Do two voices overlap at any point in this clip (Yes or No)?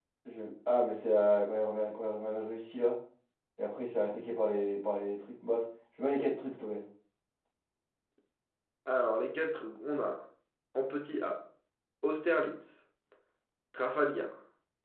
No